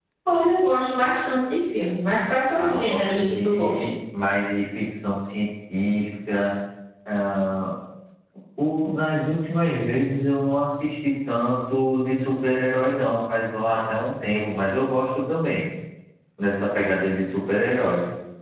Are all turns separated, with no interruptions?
No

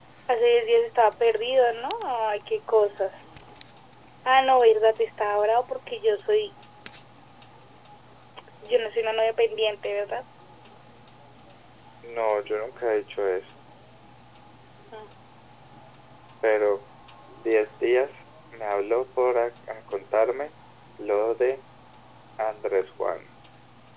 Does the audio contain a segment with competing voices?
No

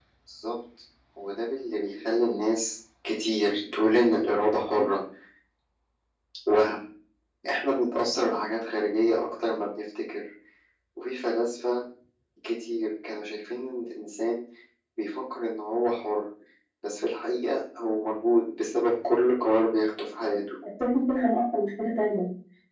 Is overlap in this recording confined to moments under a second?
Yes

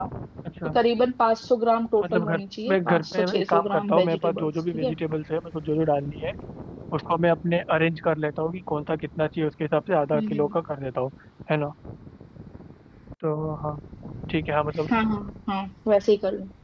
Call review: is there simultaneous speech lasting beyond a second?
Yes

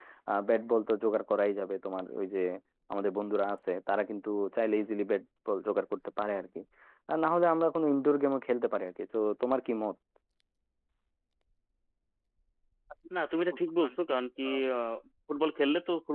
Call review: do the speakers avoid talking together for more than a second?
Yes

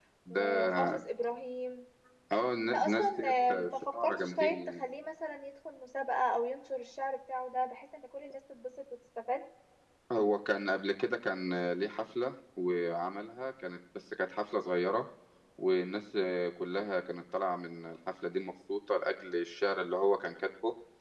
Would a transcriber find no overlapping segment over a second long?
No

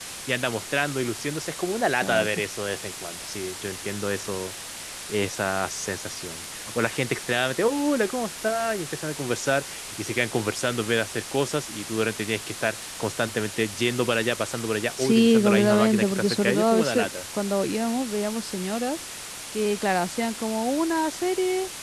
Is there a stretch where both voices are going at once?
Yes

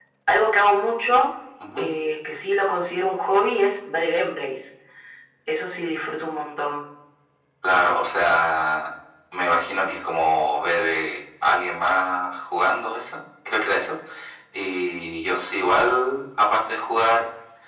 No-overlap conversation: Yes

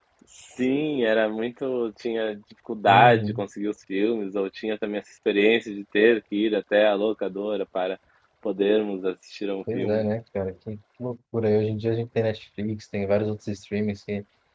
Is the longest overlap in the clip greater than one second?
No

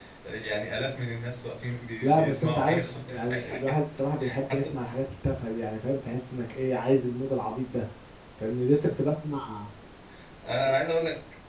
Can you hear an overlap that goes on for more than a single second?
Yes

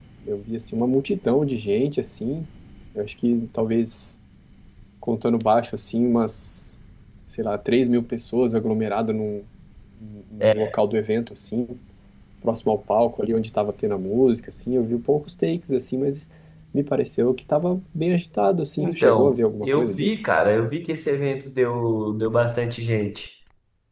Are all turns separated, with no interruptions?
No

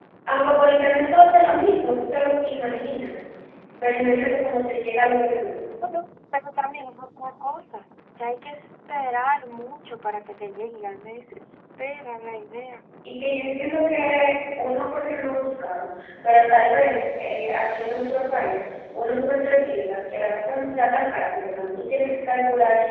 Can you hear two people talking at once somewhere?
No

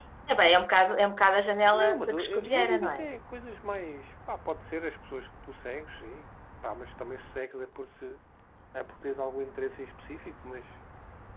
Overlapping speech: Yes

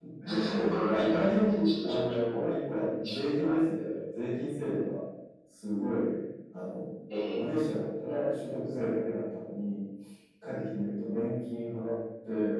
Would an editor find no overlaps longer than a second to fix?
No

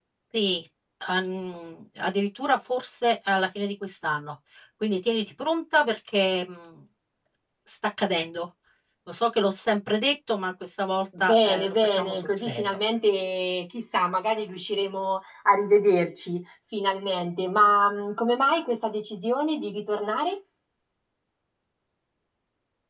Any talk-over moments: Yes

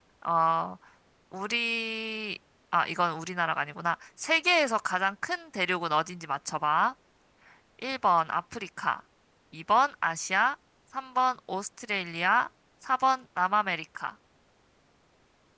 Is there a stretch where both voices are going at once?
No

